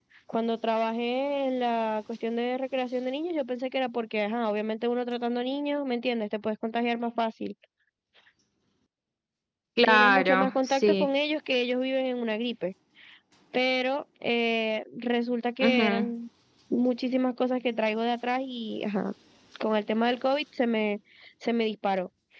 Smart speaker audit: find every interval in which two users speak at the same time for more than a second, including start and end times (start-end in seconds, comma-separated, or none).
9.8-11.1